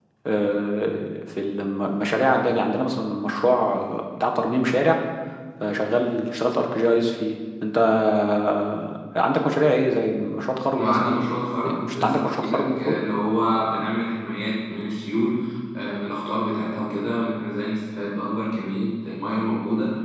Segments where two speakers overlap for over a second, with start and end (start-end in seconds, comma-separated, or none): 10.7-13.0